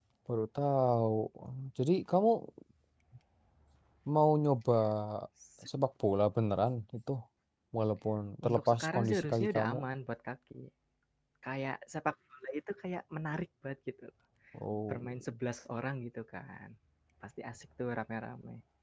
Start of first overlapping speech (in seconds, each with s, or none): 8.5 s